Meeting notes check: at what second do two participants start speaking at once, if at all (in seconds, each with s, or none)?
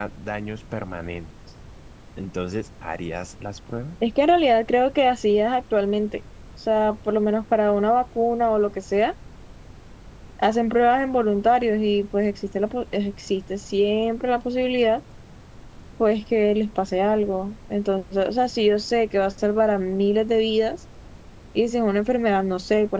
none